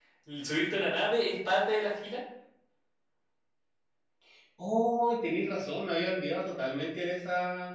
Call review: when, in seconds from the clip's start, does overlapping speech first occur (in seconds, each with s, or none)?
none